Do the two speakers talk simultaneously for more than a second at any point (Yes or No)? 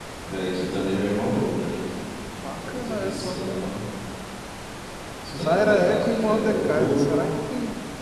Yes